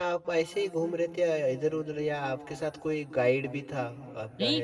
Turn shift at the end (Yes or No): Yes